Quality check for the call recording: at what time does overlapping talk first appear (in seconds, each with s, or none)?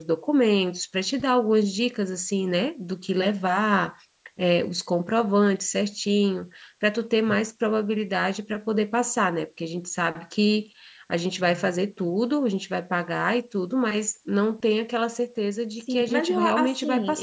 15.8 s